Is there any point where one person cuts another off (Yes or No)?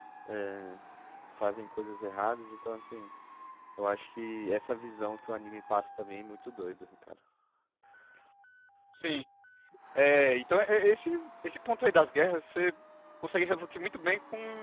No